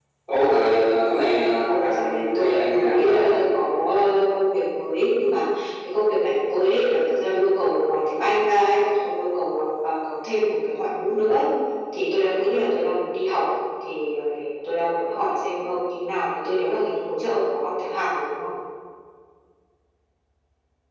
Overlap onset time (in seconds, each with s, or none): 1.7 s